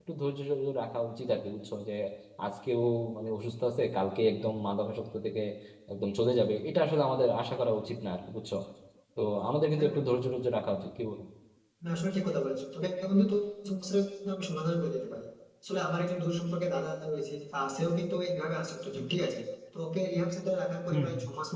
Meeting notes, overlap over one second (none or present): none